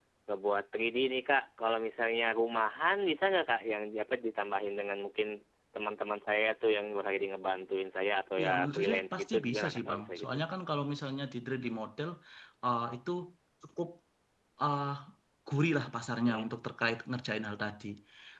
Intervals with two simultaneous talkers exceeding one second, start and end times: 8.4-10.4

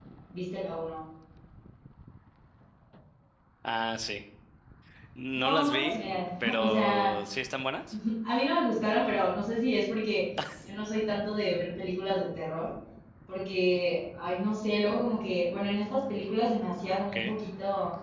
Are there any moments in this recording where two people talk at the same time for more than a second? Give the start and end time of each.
5.4-7.1

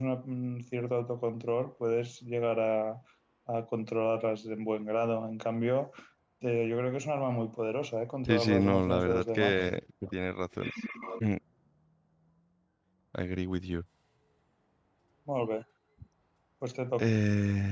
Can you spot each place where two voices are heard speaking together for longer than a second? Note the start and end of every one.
8.2-9.6

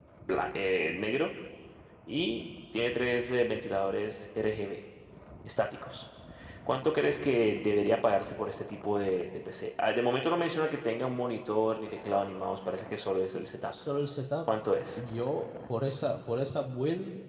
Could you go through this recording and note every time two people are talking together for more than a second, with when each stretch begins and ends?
none

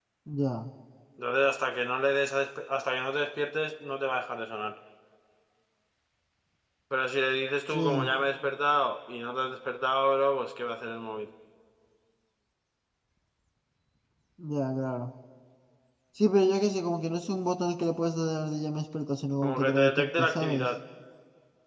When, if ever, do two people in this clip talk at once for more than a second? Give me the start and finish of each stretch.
19.4-20.7

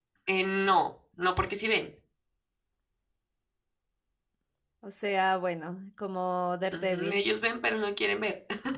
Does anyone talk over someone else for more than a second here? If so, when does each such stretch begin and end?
none

